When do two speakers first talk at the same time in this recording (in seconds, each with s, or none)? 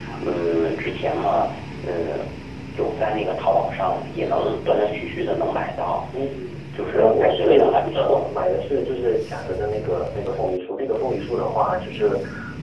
6.9 s